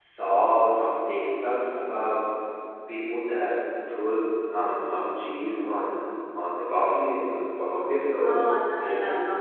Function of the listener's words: taking over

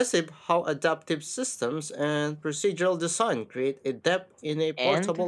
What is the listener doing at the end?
taking over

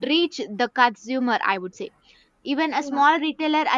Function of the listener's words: listening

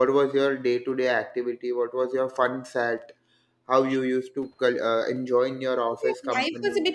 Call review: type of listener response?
taking over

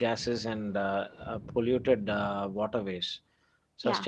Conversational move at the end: listening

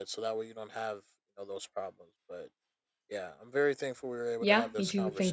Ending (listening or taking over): taking over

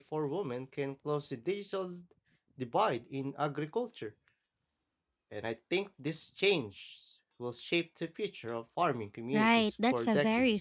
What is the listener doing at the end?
taking over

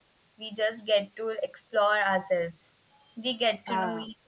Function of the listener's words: listening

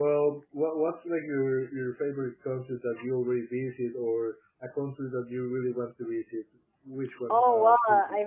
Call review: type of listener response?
taking over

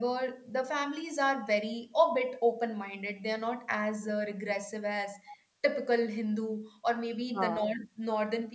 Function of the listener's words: listening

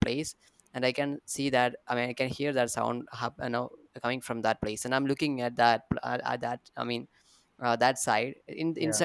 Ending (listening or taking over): listening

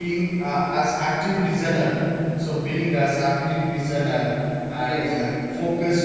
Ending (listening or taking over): listening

